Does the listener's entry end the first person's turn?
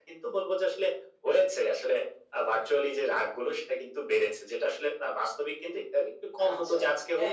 Yes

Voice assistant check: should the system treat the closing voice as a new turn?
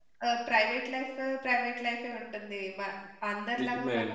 No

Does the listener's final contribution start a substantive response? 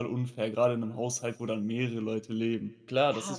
Yes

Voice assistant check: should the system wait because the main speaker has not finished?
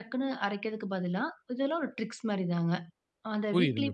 No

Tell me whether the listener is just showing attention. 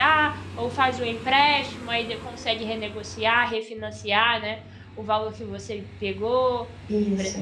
Yes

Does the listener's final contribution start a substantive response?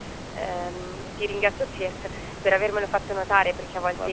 No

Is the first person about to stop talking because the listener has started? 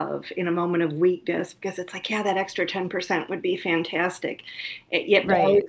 No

